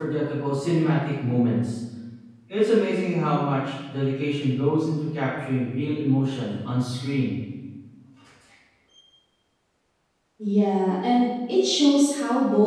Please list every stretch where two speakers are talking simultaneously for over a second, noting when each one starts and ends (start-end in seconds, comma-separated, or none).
none